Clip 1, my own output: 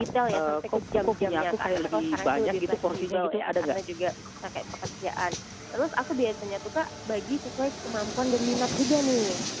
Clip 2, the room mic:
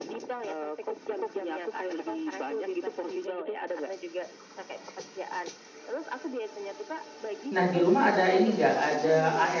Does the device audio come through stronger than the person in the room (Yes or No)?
No